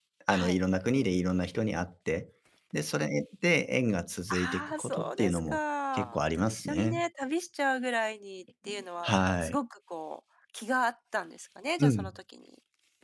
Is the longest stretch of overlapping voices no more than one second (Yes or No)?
No